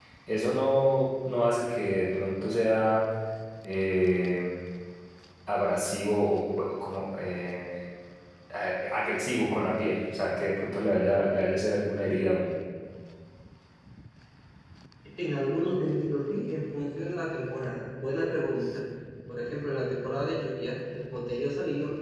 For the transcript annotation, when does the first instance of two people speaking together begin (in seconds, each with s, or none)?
none